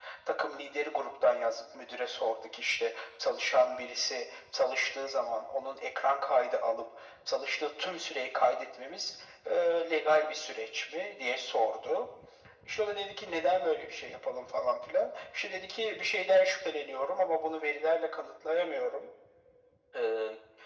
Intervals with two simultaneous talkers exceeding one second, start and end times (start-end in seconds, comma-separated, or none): none